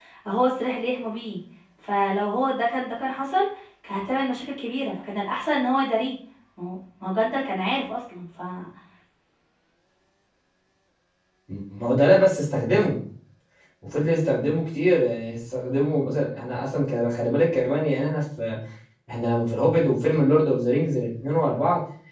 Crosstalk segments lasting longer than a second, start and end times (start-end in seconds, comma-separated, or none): none